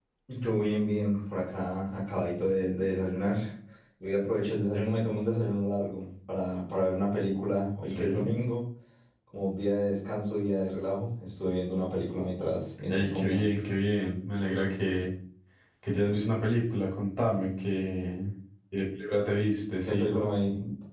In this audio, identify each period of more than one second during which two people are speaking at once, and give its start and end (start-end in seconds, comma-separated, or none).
none